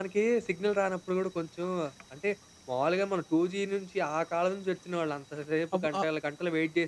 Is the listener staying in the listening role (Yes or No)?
Yes